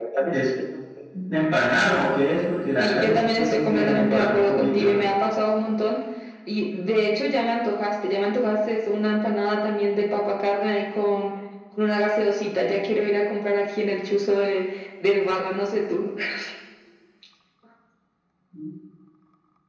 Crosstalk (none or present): present